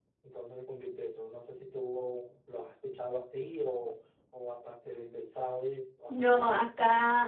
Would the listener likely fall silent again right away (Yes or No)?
No